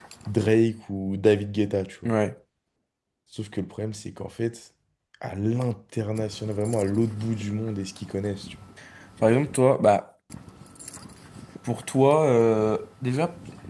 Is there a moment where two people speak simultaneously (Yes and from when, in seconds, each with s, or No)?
No